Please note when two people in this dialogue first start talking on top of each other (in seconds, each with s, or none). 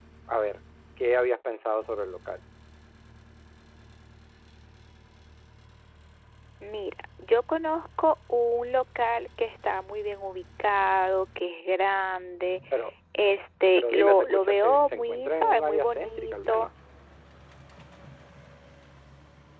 13.8 s